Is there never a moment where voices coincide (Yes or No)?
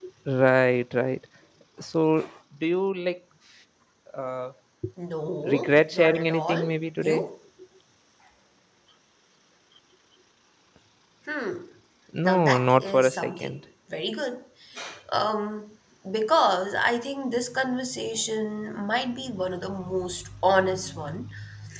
No